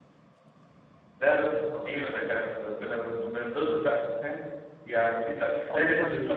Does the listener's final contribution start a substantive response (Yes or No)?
No